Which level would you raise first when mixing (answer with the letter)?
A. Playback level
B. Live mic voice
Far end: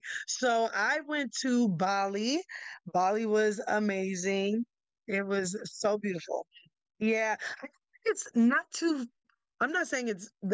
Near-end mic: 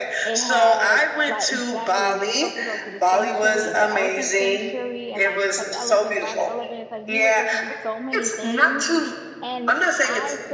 B